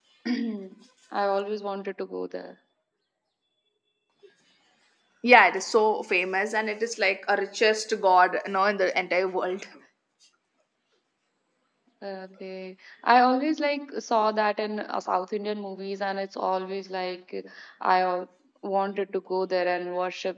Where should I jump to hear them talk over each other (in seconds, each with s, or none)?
none